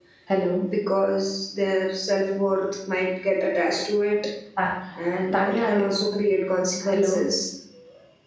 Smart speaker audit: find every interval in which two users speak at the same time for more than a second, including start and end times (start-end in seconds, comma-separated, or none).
none